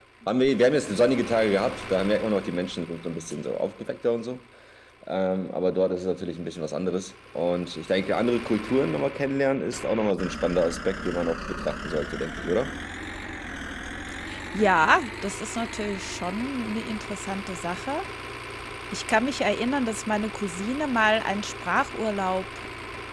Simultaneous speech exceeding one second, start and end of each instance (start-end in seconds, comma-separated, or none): none